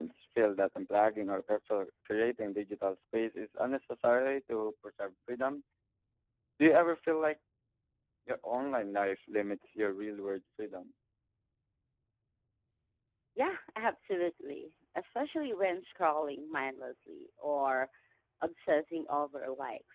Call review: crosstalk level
none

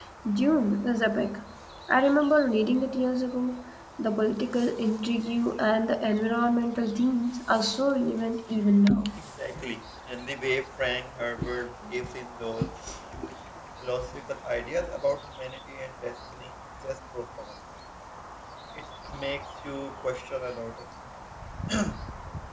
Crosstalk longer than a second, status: none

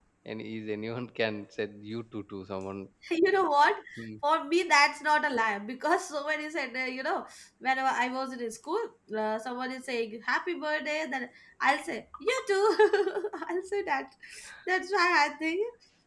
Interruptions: none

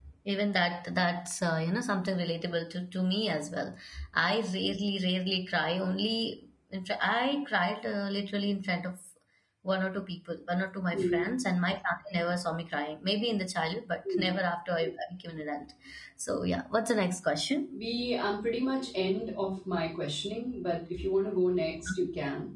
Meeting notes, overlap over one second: none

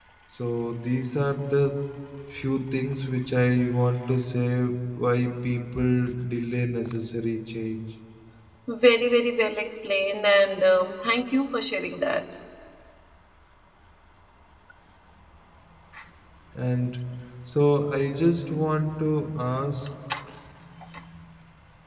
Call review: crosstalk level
none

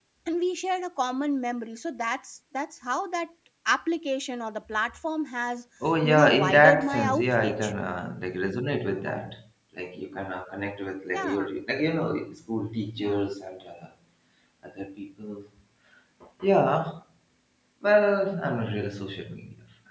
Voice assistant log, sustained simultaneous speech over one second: present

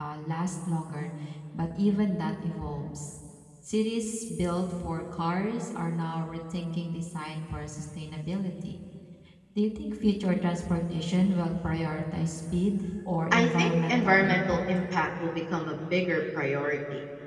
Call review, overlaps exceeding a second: present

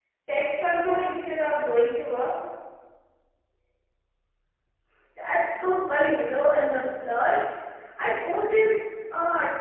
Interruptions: none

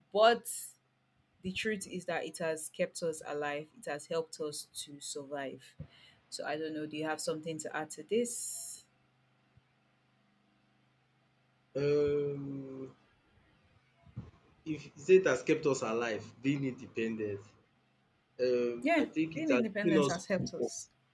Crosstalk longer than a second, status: present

